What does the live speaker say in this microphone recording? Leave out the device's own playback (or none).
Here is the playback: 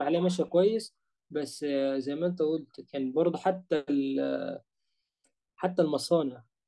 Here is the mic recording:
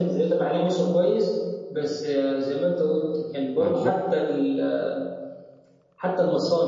أنا بدأت